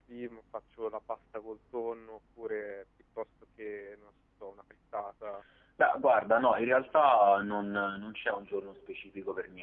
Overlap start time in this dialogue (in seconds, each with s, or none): none